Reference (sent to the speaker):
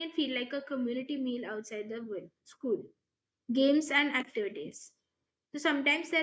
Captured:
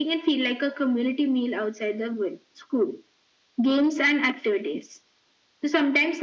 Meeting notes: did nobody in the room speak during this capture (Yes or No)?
Yes